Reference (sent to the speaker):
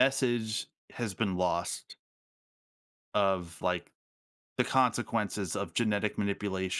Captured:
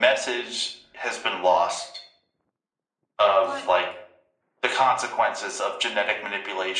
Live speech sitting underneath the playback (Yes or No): Yes